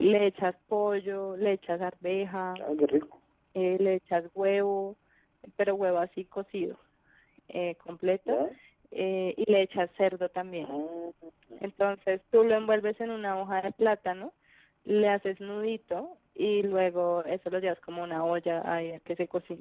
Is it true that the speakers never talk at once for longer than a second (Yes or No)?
Yes